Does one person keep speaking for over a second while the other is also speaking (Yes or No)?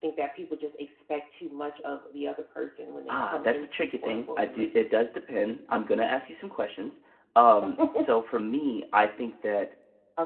Yes